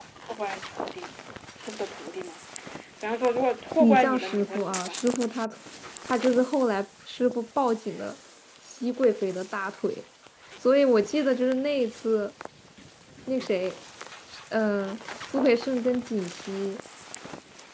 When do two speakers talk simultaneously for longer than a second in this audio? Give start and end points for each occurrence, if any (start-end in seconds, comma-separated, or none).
3.8-5.0